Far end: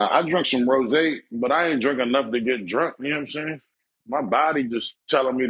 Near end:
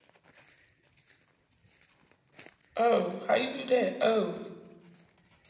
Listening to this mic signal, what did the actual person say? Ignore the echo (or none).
Oh, how you do that? Oh,